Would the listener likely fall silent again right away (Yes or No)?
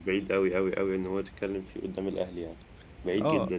No